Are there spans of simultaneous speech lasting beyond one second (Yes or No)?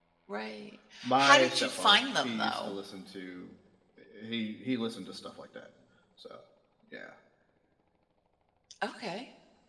Yes